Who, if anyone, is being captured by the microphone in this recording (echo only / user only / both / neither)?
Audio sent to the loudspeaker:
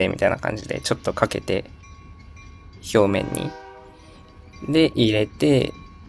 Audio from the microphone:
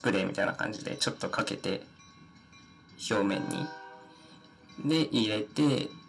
echo only